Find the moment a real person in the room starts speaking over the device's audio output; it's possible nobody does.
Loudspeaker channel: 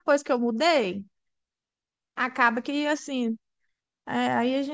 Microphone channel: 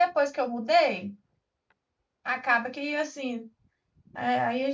none

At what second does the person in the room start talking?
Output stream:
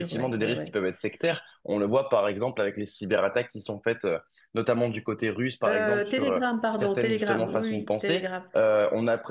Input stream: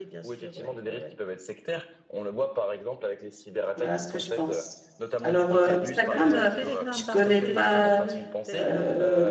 3.8 s

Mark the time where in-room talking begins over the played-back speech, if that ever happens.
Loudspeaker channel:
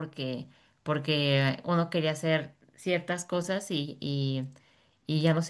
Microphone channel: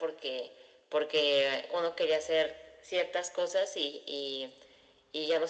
none

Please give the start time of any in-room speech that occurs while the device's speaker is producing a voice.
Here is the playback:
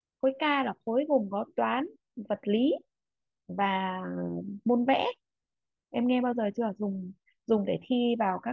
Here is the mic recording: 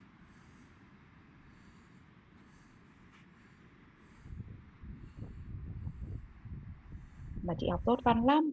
7.4 s

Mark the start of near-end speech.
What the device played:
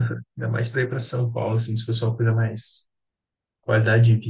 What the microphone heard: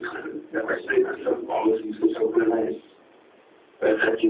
none

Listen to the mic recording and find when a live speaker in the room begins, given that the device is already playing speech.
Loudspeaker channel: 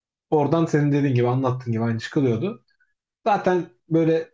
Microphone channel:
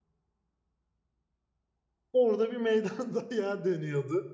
2.1 s

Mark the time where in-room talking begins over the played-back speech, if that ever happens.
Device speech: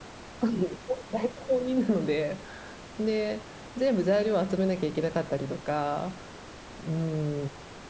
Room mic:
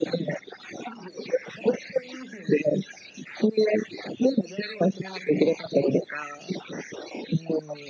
none

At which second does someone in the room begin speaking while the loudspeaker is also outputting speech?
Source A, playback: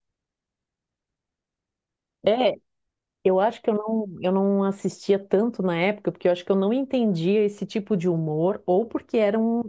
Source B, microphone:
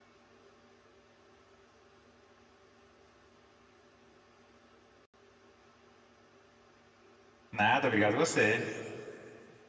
7.5 s

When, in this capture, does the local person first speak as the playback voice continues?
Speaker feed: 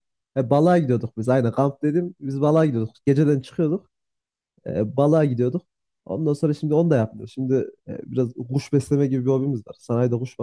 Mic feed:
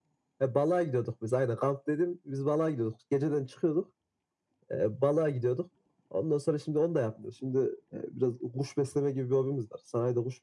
none

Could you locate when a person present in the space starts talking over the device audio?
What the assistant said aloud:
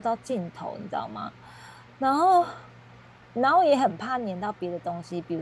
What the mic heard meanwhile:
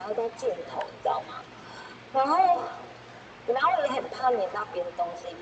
none

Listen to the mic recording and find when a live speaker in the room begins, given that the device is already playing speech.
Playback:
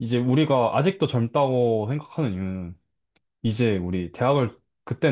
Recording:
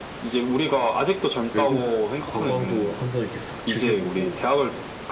1.5 s

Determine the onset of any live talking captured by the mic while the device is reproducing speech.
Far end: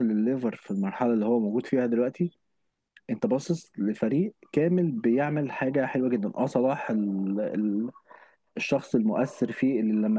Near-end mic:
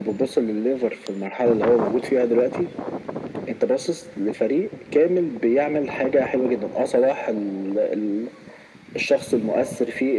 none

